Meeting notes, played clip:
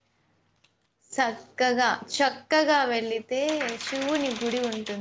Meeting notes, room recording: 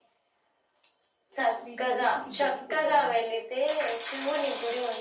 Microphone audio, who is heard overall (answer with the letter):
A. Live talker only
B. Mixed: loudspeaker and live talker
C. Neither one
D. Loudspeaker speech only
B